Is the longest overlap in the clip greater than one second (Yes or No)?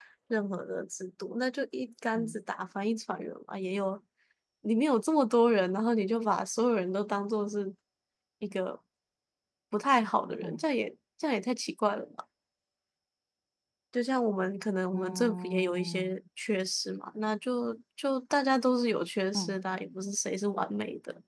Yes